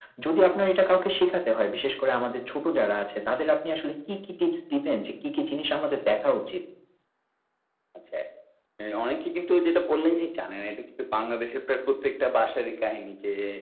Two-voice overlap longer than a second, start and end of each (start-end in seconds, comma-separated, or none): none